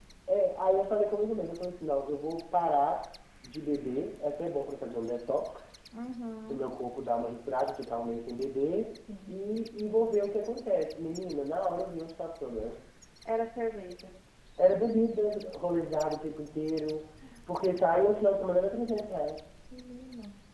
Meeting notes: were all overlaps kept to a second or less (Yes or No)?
Yes